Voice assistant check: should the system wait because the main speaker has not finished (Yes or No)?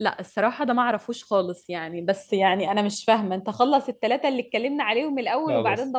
Yes